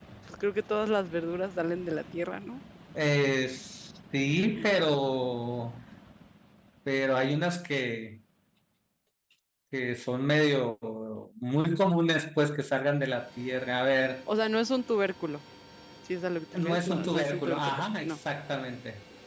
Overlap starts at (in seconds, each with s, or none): 16.6 s